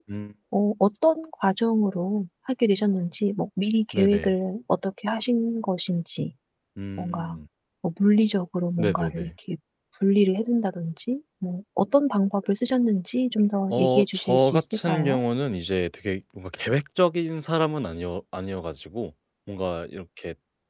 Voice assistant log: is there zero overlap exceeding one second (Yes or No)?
No